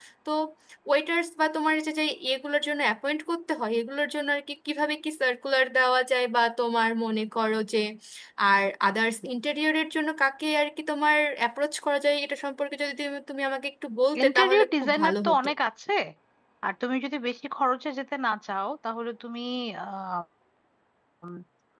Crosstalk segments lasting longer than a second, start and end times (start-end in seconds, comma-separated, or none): 14.2-15.5